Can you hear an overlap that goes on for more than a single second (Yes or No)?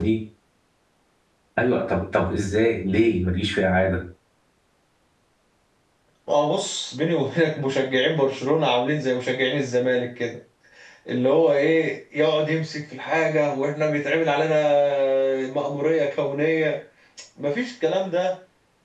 No